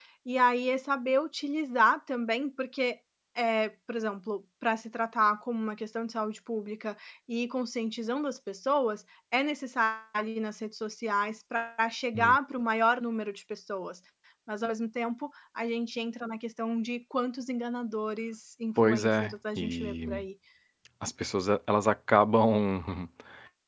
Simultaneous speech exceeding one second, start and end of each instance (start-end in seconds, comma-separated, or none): 18.8-20.2